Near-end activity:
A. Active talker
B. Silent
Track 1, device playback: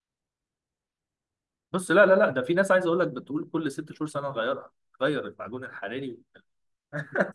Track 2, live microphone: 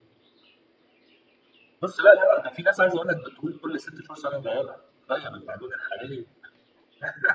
B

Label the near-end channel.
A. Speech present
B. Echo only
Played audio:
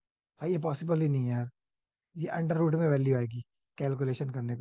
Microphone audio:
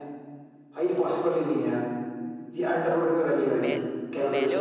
A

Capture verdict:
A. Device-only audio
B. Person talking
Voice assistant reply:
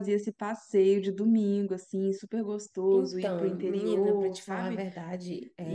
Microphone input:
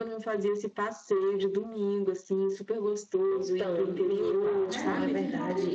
B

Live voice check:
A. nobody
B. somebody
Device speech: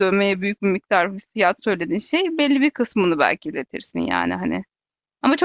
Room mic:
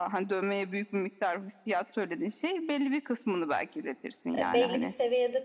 B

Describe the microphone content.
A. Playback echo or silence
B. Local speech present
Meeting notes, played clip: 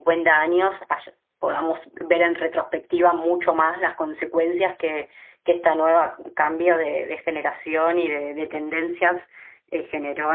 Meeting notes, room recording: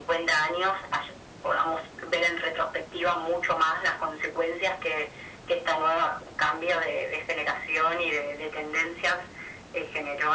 A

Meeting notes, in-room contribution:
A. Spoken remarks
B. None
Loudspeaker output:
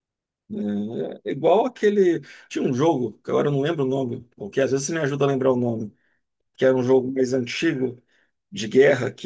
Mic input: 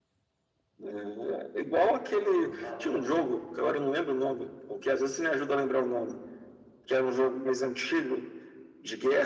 A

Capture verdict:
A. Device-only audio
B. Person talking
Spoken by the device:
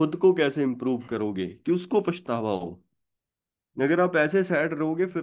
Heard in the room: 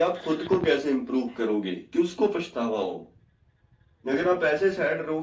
A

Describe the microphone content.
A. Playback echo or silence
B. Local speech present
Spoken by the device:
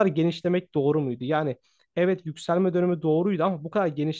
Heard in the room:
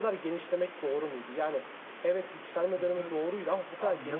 B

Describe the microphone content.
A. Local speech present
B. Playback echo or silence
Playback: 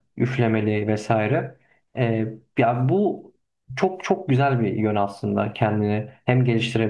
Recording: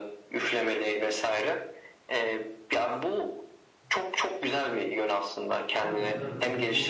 A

